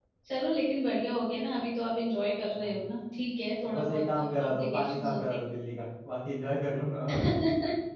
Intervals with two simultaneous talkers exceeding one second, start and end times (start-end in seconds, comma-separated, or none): 3.8-5.2